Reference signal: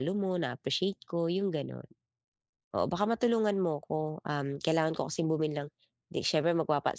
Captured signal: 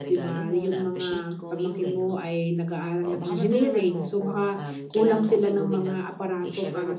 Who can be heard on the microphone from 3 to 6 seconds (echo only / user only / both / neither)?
both